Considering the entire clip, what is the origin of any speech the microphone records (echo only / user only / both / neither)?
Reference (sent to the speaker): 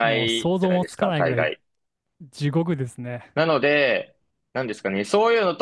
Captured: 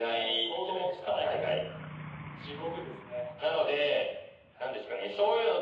echo only